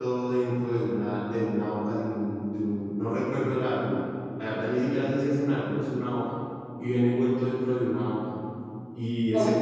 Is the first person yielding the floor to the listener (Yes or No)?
Yes